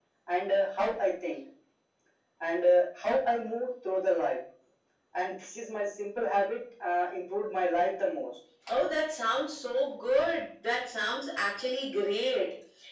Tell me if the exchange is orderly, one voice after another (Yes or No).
Yes